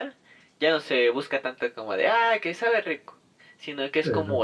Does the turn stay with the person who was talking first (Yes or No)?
Yes